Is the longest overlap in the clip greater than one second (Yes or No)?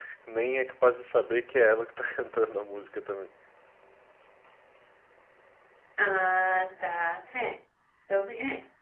No